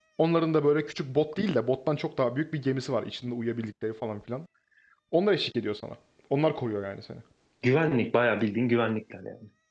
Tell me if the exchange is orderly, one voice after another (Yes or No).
Yes